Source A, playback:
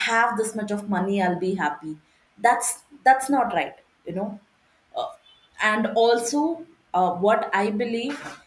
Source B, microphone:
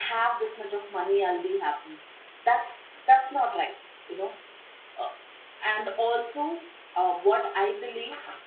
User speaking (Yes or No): No